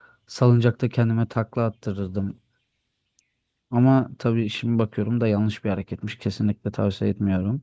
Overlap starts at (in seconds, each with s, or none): none